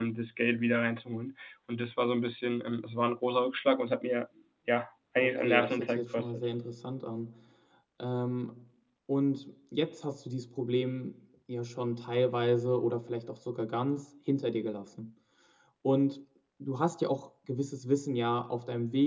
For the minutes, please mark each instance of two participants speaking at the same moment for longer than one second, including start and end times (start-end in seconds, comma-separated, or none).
5.2-6.5